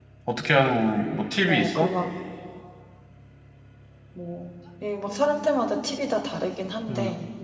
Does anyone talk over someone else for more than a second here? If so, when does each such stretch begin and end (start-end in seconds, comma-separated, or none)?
none